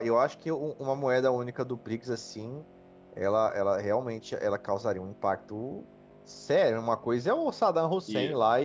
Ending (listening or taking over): listening